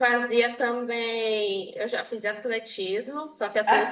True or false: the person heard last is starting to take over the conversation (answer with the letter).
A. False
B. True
A